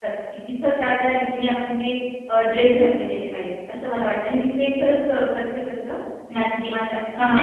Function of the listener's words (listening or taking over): taking over